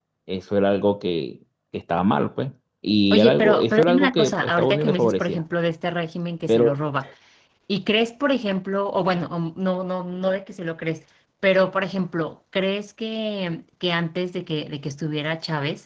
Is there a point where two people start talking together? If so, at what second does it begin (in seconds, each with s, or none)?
3.1 s